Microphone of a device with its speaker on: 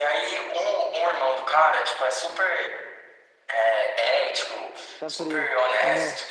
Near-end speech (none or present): present